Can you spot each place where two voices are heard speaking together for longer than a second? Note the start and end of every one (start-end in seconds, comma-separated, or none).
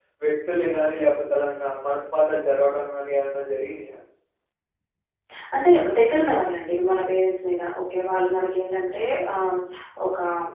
none